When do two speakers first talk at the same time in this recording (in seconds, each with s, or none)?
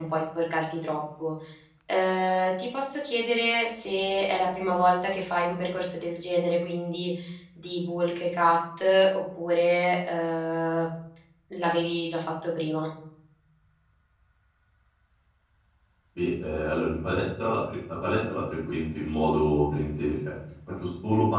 none